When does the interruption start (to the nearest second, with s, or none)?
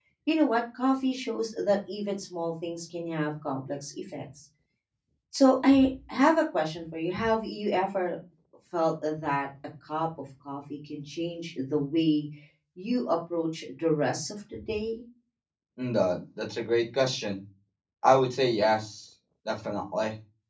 none